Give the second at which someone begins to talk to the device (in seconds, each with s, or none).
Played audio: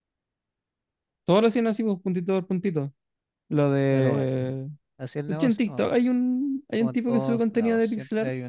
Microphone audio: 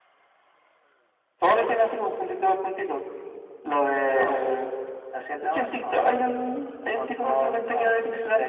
none